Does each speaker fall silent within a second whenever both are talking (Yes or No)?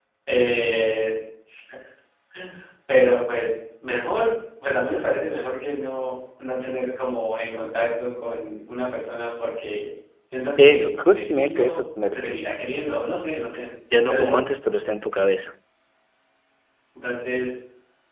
No